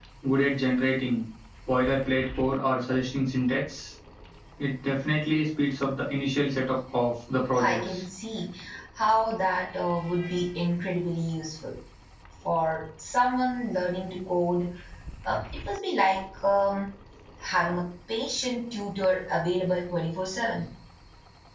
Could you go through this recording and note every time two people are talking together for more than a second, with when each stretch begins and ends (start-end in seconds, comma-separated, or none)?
none